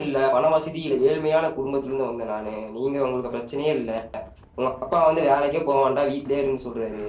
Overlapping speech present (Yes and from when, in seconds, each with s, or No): No